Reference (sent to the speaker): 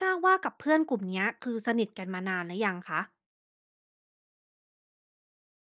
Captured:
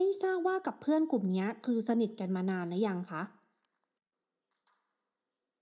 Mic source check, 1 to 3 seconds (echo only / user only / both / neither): echo only